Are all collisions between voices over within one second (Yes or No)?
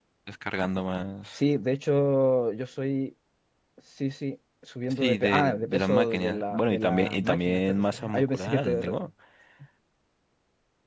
No